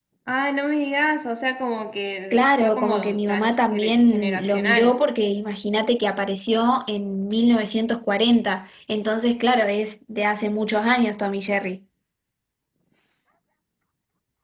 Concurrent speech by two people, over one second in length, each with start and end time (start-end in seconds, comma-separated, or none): 2.3-4.9